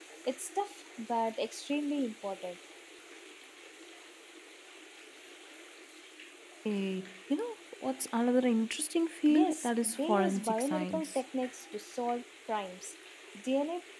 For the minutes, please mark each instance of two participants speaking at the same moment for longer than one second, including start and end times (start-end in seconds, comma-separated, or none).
9.3-11.2